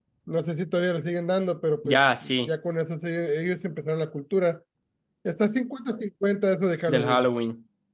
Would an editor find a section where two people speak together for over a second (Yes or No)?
No